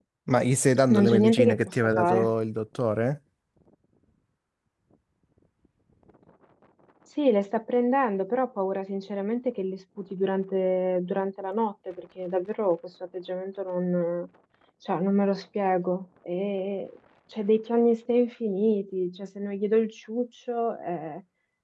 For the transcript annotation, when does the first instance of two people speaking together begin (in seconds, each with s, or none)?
0.9 s